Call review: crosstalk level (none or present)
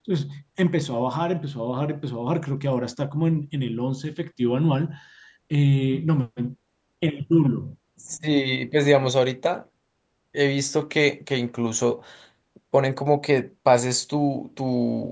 none